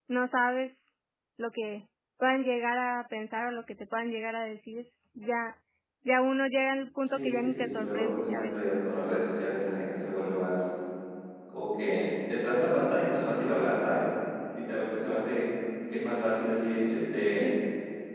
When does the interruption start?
7.0 s

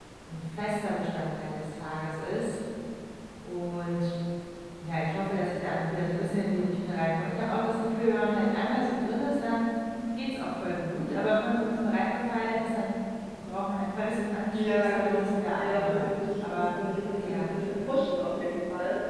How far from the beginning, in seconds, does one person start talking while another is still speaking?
14.5 s

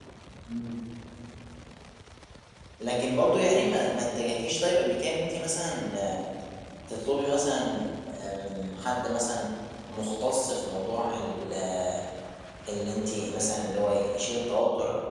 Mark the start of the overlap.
none

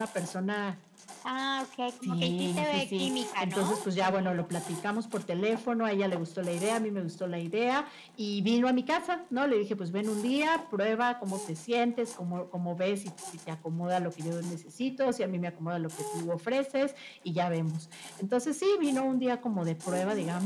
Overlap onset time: 2.0 s

